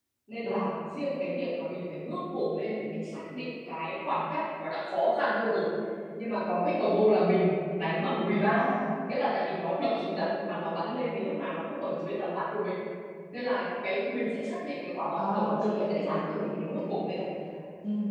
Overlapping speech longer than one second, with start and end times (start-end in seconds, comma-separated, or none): 15.2-17.2